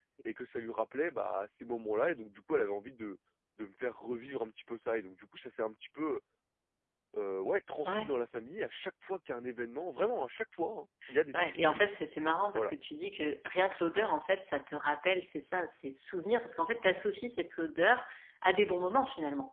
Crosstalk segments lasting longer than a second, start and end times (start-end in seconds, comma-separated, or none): none